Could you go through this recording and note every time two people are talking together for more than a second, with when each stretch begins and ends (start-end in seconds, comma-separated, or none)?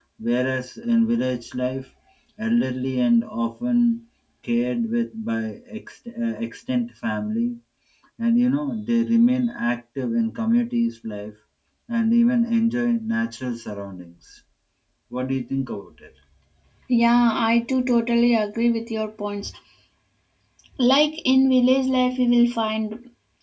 none